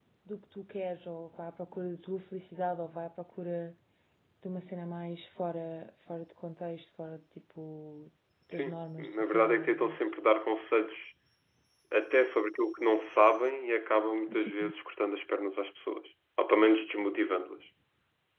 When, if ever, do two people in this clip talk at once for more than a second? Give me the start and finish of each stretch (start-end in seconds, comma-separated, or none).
8.5-10.0